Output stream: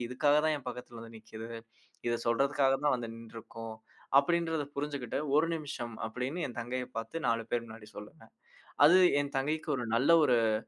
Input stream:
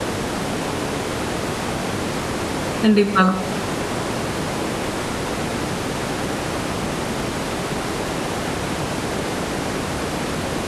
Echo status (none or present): none